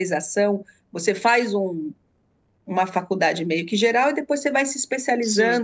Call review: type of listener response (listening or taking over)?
listening